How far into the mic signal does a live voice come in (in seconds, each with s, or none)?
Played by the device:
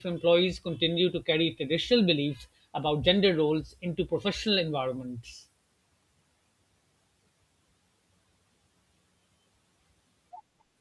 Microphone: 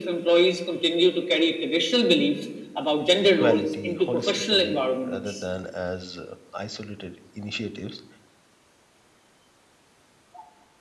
3.1 s